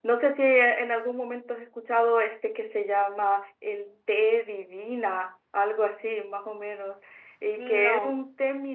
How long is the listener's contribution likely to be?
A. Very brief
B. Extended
A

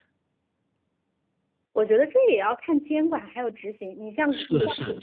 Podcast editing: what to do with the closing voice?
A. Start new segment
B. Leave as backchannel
A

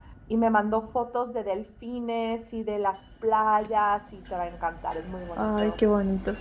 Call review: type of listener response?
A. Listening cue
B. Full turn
B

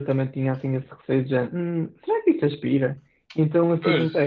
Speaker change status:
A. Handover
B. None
B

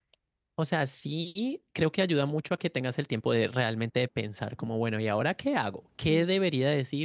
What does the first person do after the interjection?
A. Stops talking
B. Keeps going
B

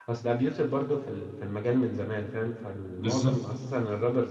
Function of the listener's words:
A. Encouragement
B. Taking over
A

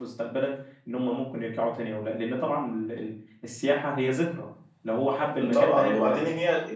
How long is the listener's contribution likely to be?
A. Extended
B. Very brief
A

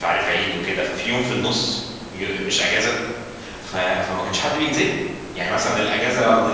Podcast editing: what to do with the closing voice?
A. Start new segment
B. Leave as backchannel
B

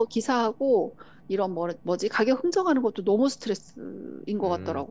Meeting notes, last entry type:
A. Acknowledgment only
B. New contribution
B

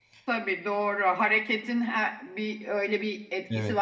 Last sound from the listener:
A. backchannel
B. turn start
B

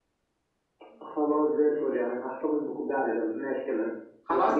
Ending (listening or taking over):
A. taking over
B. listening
A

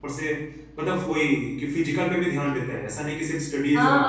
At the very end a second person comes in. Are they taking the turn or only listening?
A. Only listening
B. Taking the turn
B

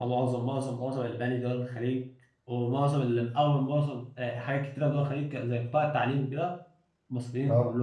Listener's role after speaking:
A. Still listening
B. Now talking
A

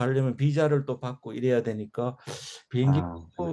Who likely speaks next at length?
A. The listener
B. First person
B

